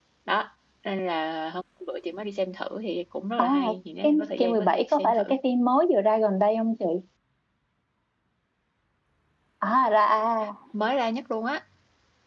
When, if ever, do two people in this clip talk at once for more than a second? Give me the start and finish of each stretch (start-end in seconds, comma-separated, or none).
4.0-5.3